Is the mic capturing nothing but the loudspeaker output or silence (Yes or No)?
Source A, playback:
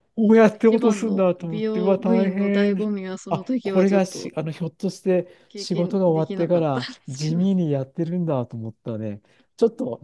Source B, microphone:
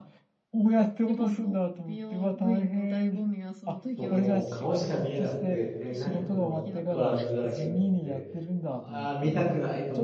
No